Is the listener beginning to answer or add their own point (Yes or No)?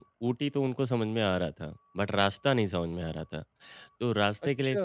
No